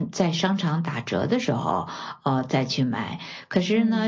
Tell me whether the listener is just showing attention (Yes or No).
Yes